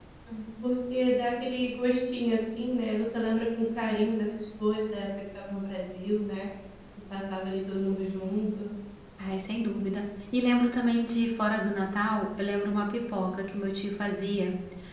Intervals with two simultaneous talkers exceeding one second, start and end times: none

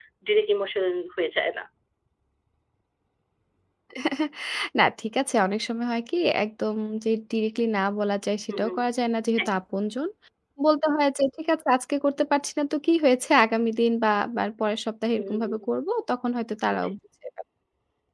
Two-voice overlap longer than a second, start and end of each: none

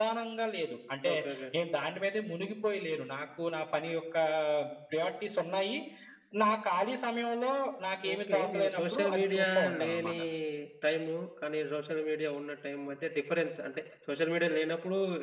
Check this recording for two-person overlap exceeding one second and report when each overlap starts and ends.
8.1-10.1

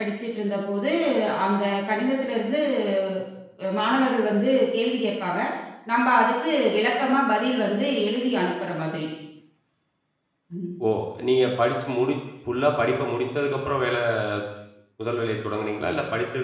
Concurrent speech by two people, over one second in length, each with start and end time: none

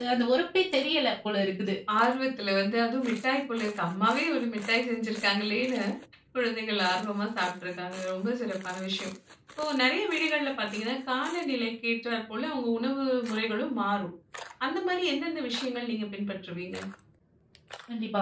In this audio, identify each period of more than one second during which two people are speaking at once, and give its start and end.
none

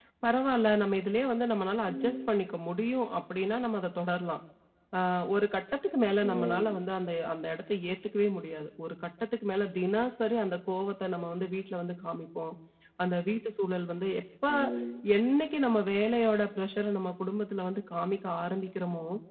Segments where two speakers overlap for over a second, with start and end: none

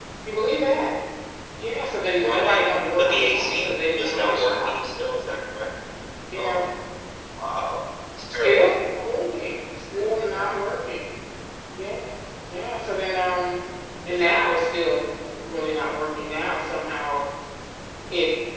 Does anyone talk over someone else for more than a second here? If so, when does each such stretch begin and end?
2.2-4.7

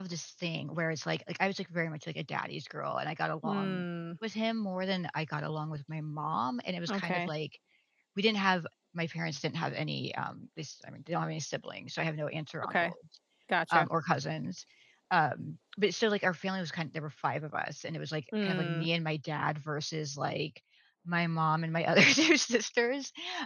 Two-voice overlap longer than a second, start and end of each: none

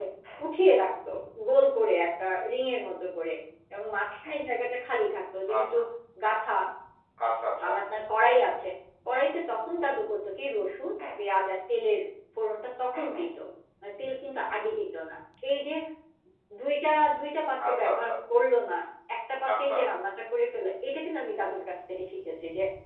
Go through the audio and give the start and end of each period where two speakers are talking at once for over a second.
none

